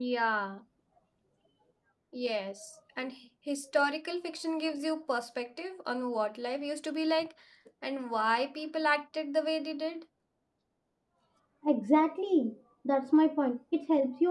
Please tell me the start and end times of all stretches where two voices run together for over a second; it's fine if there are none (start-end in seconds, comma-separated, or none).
none